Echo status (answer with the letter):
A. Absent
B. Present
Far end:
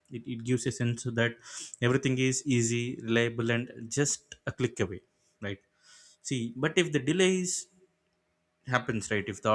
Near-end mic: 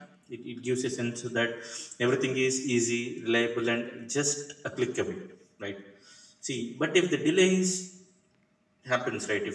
B